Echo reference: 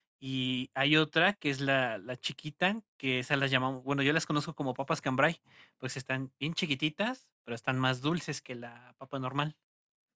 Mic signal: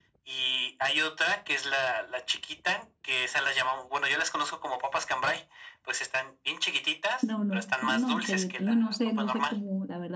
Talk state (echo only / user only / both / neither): both